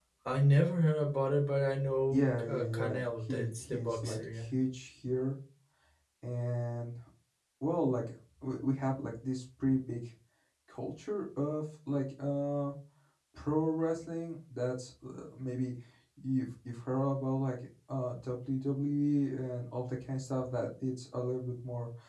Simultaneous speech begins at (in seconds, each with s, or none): 2.1 s